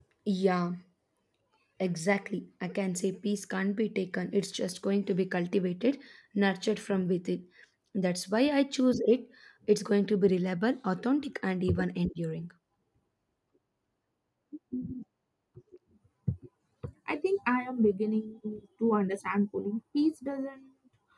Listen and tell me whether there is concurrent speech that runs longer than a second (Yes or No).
No